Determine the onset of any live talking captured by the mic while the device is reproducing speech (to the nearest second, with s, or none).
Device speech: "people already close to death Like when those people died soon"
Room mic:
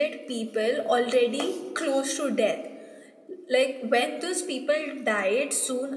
none